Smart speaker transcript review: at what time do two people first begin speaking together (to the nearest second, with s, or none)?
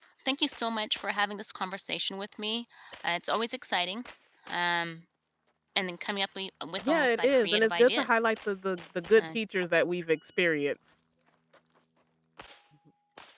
7 s